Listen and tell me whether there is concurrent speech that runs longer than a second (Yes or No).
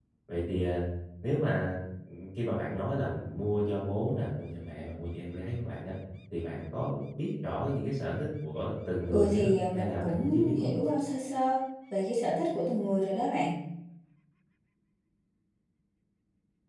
Yes